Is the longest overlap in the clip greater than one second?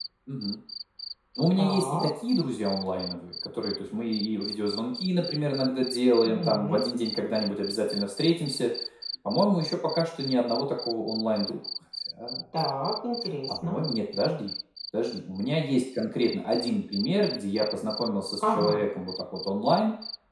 No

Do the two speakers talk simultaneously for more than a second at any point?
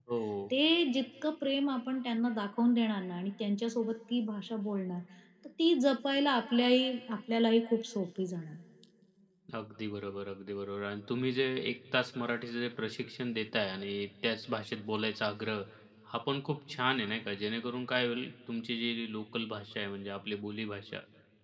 No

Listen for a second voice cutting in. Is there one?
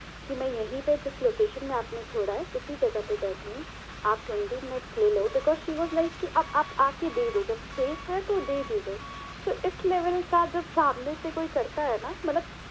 No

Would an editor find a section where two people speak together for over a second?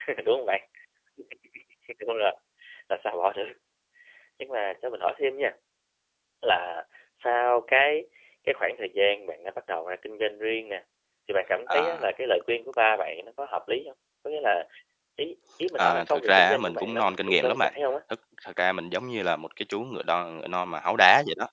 Yes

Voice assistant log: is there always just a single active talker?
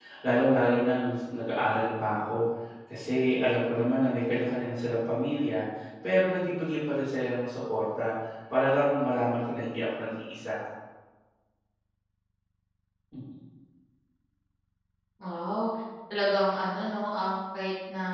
Yes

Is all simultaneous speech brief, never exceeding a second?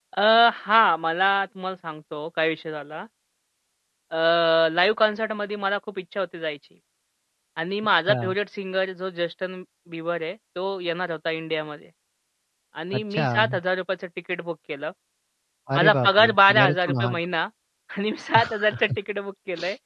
No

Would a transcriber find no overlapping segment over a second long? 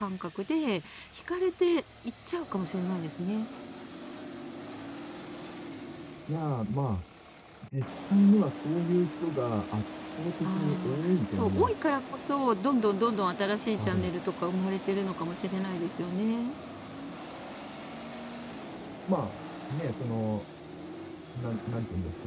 No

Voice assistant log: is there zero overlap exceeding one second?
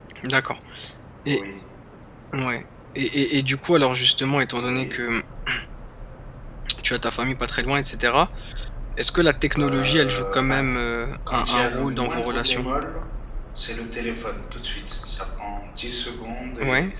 No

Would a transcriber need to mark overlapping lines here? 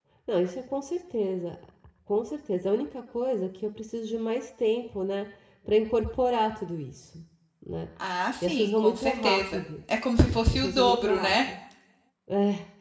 Yes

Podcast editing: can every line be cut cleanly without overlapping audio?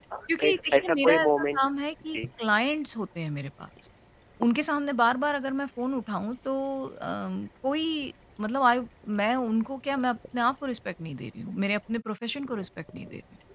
No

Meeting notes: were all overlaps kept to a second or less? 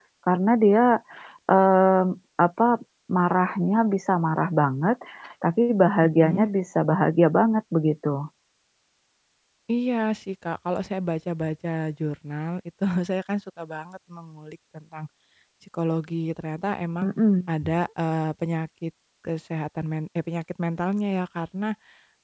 Yes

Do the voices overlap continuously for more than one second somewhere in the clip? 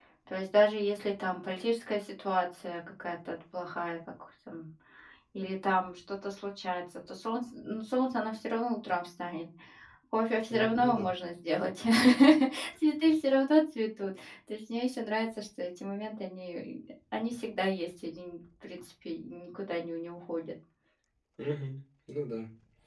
No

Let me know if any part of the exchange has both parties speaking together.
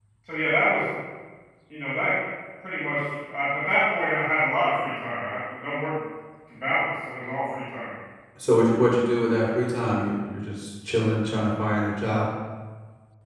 No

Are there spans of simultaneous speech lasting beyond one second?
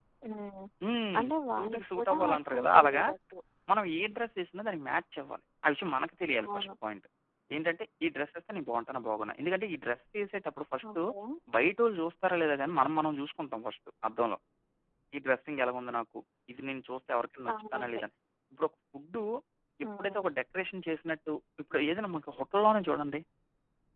Yes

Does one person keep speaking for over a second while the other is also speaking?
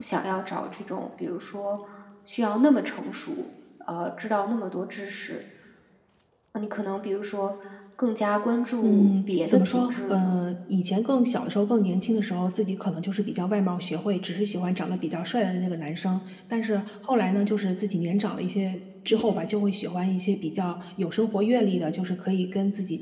Yes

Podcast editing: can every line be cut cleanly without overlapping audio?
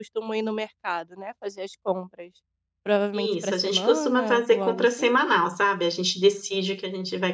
No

